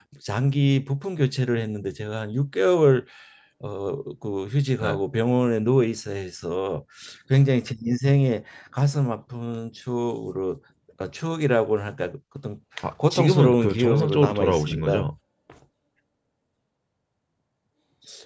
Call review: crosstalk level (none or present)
present